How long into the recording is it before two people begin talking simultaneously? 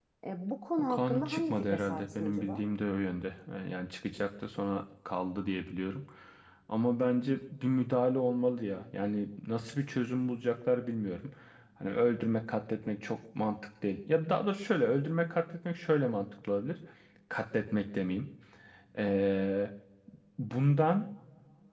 1 s

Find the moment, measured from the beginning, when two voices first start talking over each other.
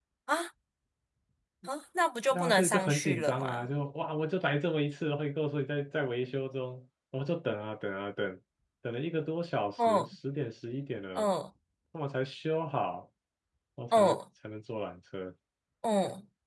2 s

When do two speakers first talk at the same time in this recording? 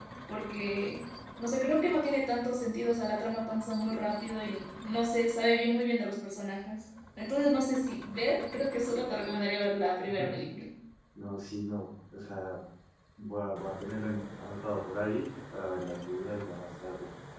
none

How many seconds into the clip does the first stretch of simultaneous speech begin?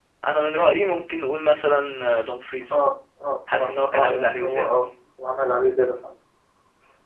4 s

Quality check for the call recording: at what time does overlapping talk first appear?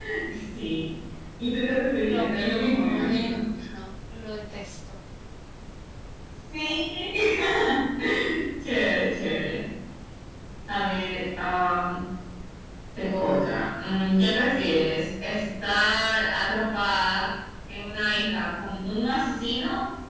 2 s

